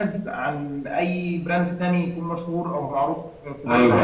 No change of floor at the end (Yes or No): No